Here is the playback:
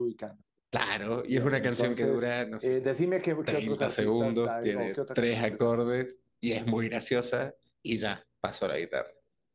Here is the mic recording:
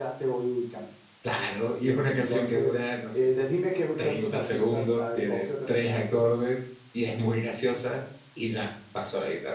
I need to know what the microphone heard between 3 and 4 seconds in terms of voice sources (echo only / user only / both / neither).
echo only